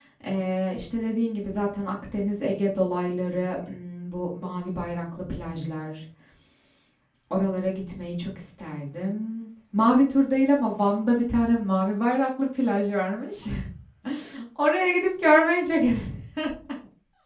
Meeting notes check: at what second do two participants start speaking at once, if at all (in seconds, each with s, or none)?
none